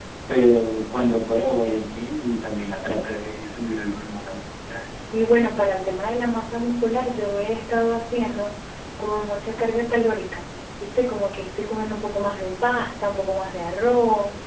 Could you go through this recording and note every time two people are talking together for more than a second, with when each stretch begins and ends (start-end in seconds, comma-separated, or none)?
none